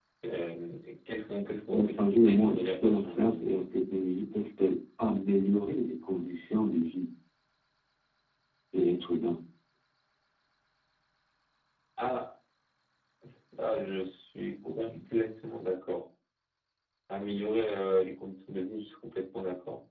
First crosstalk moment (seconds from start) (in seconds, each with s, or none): 1.7 s